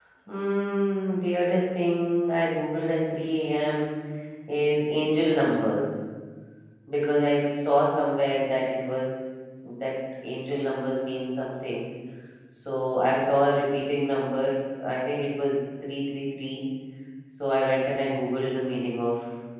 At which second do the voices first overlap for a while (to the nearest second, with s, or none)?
none